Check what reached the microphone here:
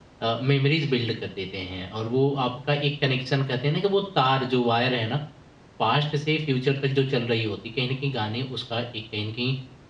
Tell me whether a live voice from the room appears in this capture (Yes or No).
Yes